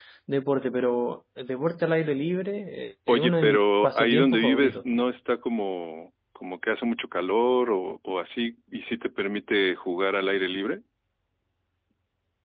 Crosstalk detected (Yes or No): Yes